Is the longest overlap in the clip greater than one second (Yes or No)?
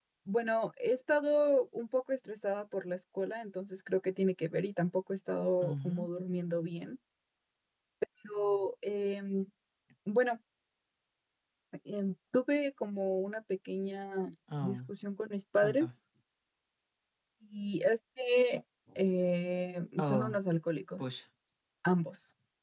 No